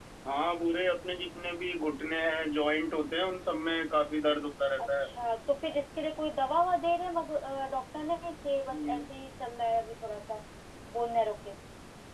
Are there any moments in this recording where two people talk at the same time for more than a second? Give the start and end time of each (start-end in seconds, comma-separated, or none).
none